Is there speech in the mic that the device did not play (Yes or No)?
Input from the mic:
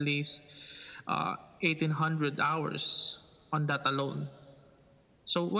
No